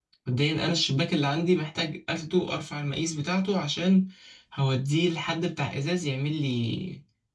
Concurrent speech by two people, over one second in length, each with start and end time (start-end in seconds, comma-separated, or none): none